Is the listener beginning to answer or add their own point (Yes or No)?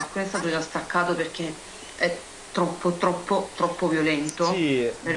Yes